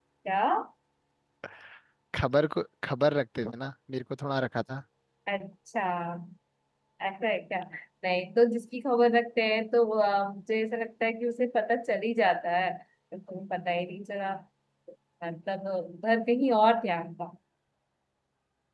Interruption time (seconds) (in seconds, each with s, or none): none